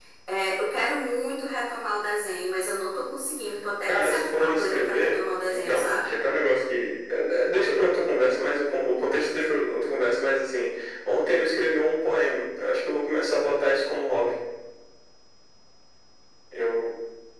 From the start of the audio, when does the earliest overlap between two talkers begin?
3.9 s

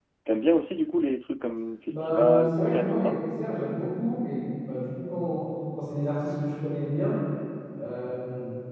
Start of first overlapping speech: 1.9 s

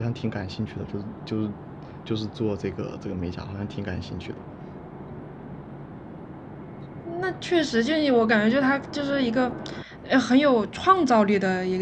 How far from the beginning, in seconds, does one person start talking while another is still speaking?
none

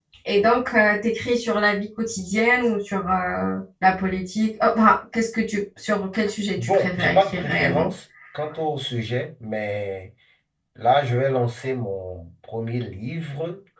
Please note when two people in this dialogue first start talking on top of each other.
6.6 s

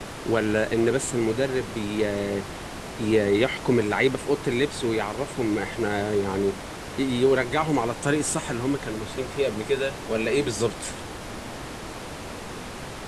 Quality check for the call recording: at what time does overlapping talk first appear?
none

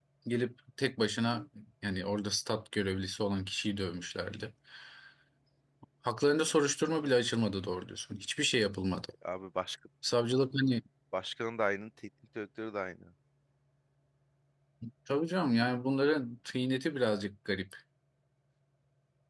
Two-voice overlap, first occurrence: none

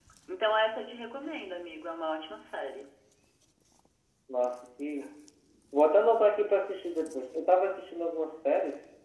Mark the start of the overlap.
none

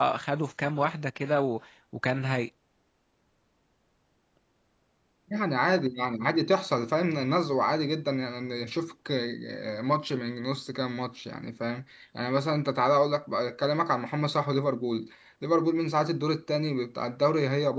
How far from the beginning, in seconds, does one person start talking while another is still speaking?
none

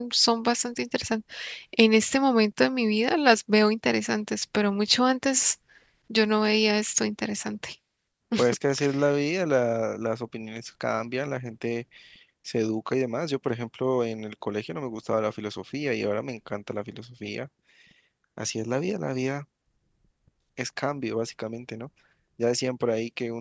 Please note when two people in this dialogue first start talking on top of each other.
none

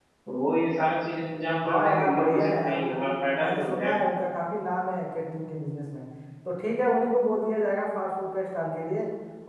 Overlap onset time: 1.6 s

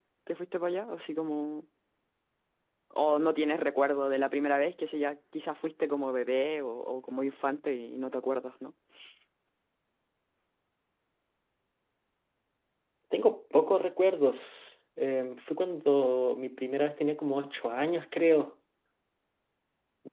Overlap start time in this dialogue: none

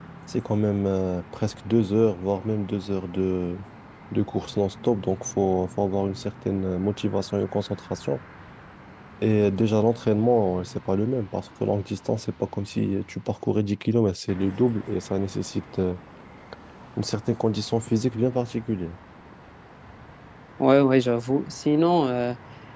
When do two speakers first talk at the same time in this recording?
none

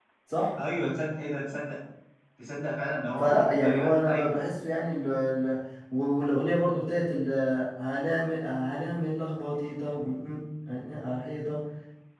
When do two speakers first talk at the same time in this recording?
3.2 s

